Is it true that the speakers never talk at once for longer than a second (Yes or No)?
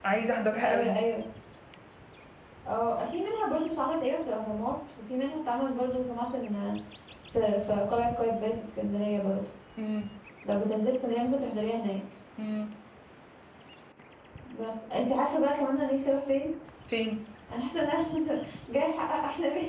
Yes